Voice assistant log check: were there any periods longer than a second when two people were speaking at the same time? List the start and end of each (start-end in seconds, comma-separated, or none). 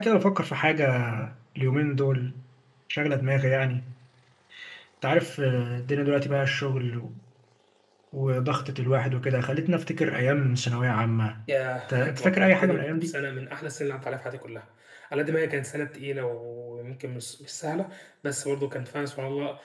11.9-13.1